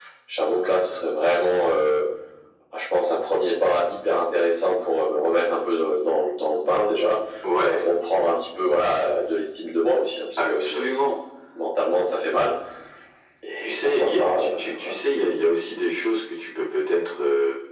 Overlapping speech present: Yes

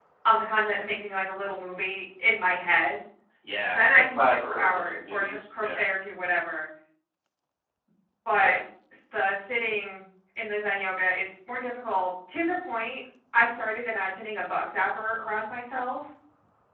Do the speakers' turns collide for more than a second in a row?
Yes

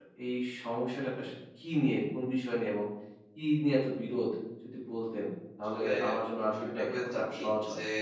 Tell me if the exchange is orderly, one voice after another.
No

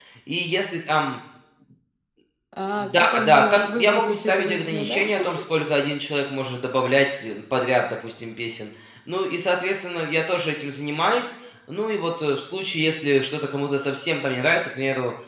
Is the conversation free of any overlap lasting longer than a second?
No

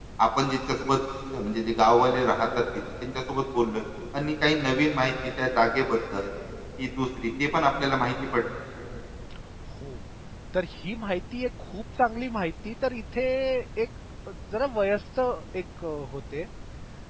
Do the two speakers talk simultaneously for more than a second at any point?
No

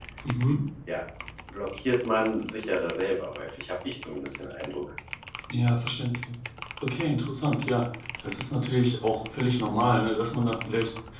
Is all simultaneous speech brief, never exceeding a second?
Yes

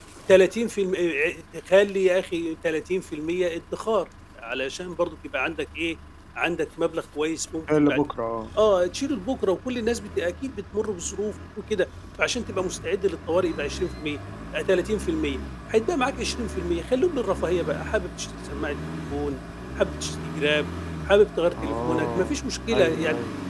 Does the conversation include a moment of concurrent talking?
Yes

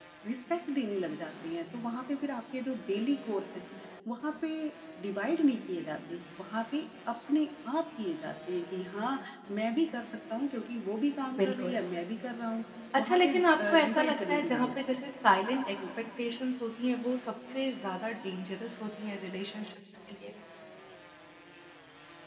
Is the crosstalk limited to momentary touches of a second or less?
No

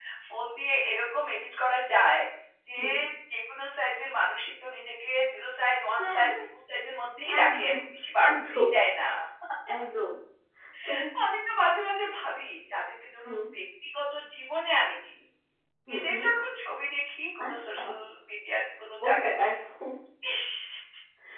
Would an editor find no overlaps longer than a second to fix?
Yes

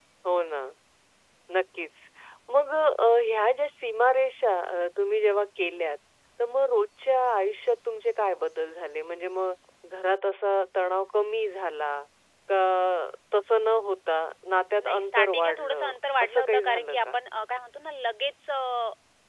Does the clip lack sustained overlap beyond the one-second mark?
No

